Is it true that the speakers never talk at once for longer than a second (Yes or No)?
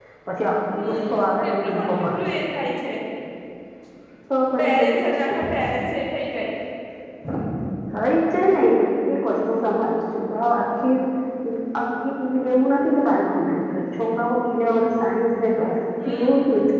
No